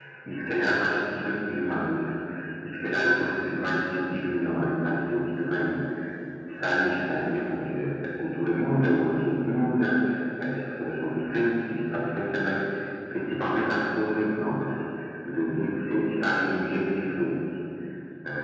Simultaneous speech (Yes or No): No